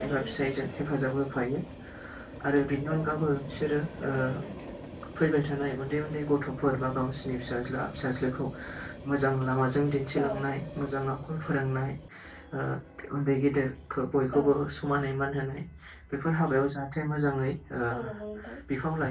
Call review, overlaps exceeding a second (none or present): none